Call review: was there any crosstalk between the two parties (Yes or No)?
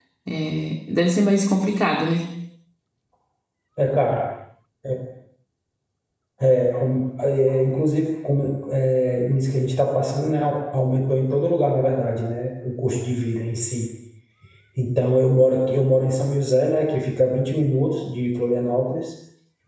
No